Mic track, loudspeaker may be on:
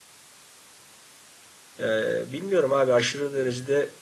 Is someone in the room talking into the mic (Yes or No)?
Yes